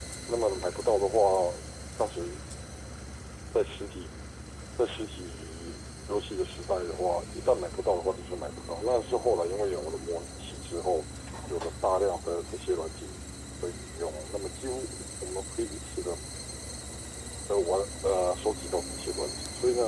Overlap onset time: none

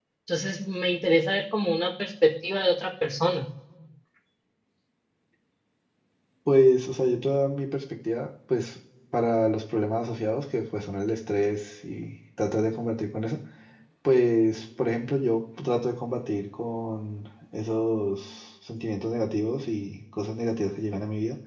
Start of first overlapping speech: none

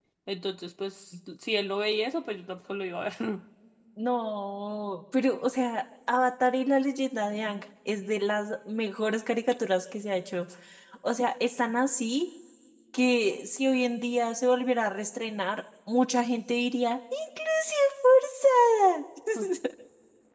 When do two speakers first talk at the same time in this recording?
none

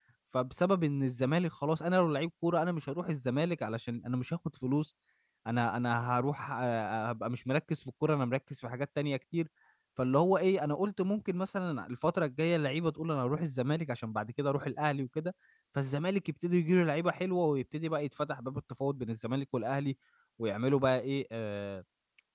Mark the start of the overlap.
none

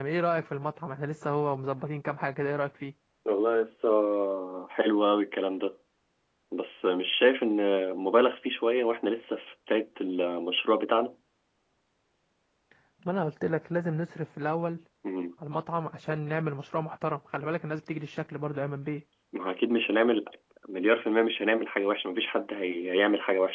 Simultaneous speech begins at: none

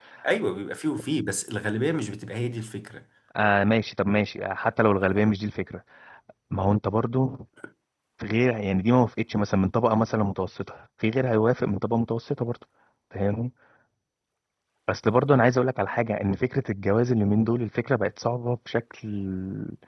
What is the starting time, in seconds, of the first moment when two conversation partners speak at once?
none

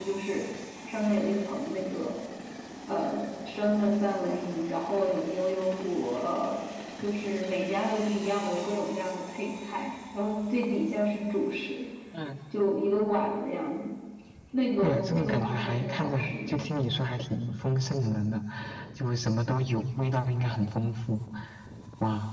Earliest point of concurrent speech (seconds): 14.8 s

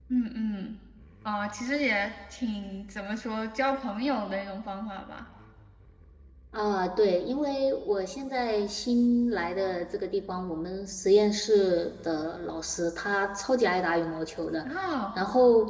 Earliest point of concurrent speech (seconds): none

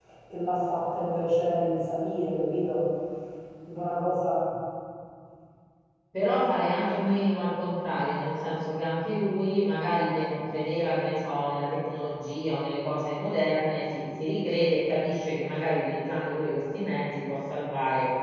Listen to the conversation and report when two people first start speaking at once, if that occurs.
none

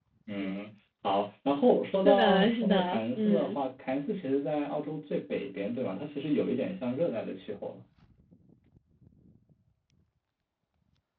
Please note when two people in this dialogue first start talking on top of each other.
2.0 s

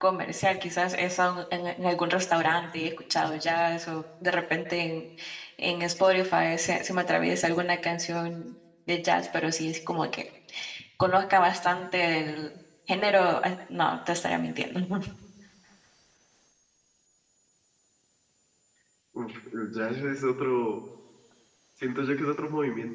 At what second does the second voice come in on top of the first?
none

